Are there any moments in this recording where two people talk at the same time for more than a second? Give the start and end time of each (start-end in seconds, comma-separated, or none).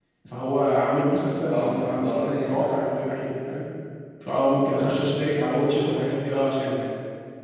1.5-2.8